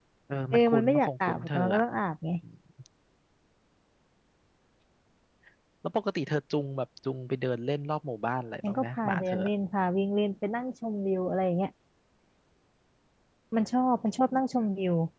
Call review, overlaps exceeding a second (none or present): present